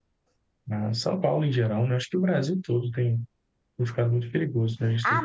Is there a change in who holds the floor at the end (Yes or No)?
Yes